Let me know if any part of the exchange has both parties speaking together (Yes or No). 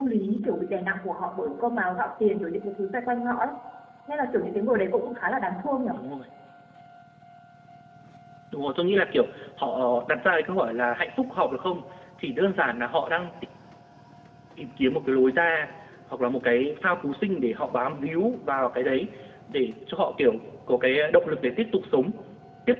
No